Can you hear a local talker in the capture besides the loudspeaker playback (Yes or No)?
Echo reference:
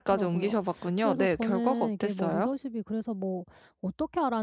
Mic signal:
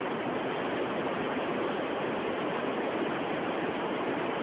No